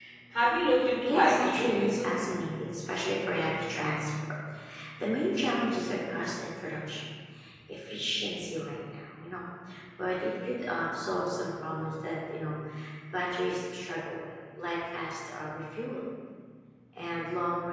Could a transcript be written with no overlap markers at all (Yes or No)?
No